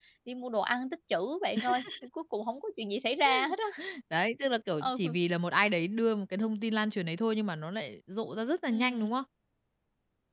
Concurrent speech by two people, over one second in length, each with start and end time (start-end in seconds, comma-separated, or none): none